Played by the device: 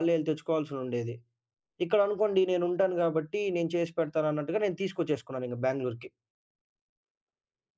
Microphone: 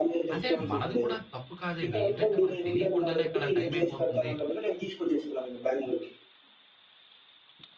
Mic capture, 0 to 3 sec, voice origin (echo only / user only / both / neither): both